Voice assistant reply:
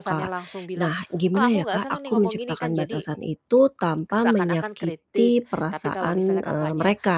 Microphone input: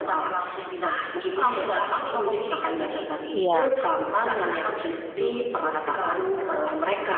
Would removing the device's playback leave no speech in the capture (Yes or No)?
No